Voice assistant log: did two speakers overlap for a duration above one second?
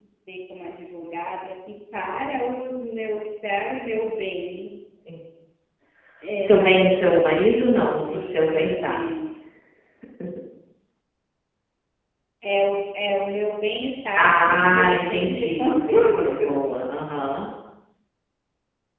Yes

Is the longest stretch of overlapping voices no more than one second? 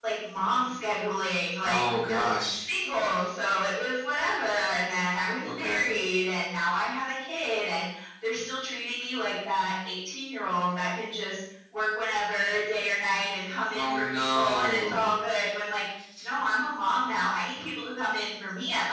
No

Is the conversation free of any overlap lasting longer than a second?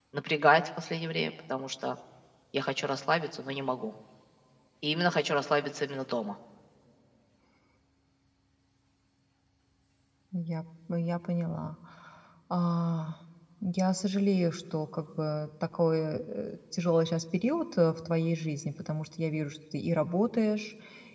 Yes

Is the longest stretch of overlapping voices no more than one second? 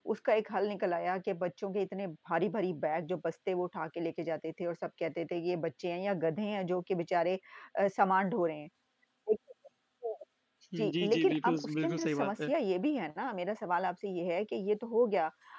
No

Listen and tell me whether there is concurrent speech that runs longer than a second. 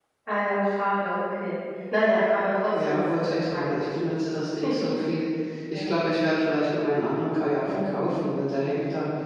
Yes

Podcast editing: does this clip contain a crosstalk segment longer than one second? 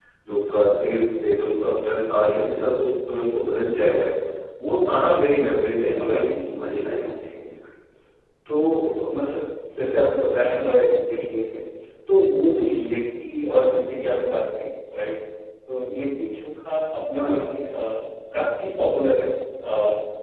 No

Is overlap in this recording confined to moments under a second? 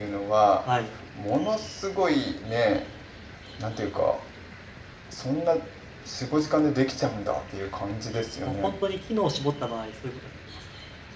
Yes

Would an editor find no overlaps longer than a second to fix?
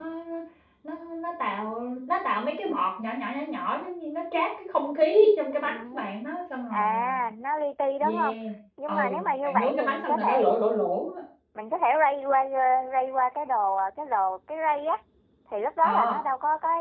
No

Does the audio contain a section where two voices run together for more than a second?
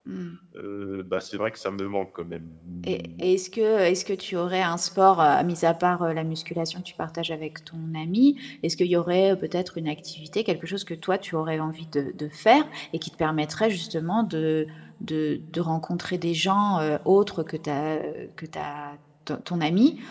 No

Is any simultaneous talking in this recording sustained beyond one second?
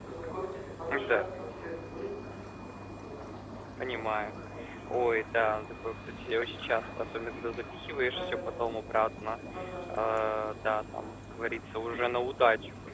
No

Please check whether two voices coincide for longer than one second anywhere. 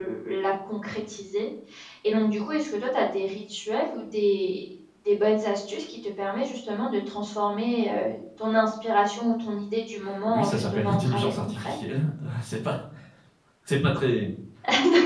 Yes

